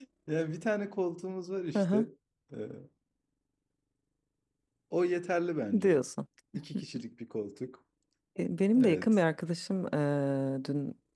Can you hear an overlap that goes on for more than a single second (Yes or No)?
No